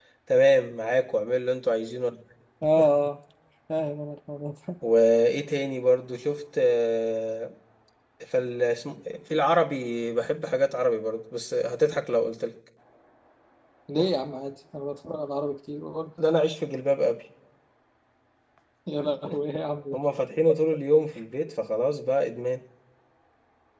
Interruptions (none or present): none